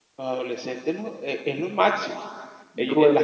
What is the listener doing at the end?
listening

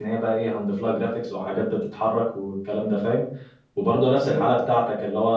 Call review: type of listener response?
listening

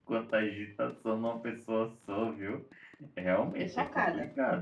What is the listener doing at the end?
listening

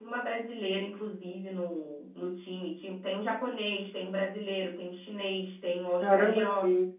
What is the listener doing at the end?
taking over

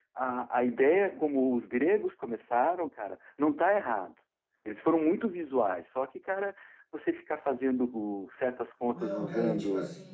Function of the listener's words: taking over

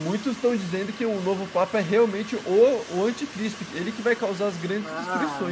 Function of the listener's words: taking over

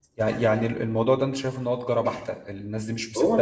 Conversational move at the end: listening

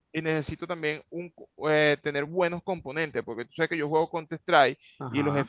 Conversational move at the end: listening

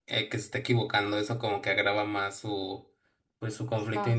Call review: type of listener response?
listening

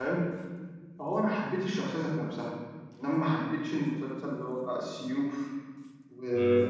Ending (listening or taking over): listening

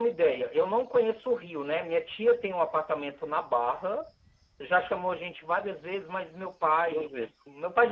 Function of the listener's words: listening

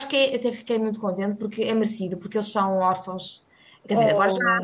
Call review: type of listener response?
listening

